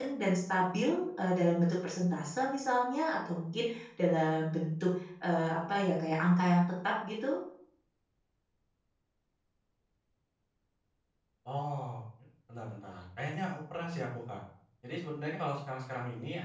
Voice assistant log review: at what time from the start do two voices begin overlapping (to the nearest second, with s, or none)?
none